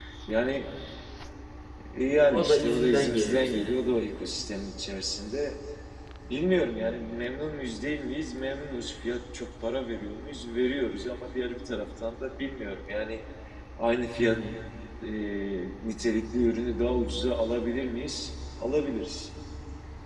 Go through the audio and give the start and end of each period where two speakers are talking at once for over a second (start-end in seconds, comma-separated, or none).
2.3-3.7